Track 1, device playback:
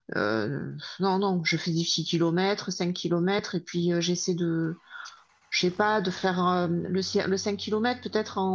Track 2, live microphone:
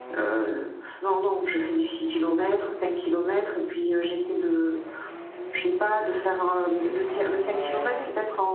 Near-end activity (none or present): none